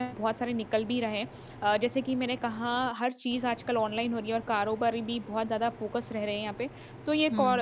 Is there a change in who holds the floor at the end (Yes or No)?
No